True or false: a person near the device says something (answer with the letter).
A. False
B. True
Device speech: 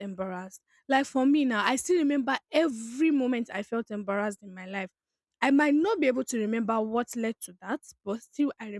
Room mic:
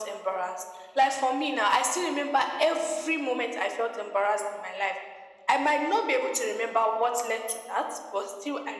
A